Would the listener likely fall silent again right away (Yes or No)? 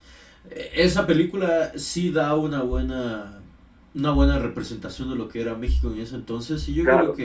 Yes